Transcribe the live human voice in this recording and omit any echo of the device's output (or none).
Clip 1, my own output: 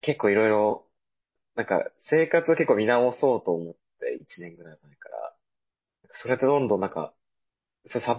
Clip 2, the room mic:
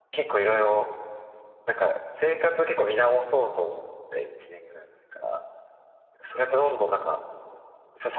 none